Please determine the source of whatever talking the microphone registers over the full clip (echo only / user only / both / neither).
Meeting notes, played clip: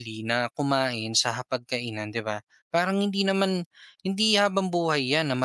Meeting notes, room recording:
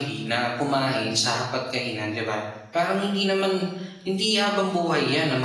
echo only